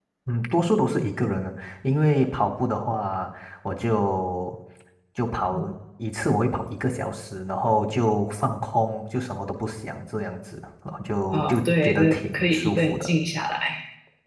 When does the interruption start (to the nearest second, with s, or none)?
11 s